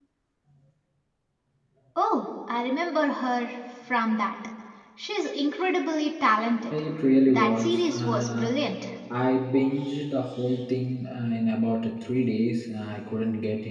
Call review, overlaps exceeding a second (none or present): present